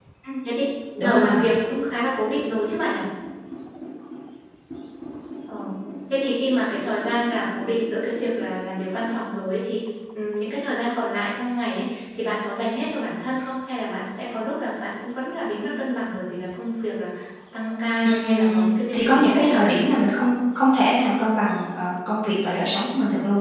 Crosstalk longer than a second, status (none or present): present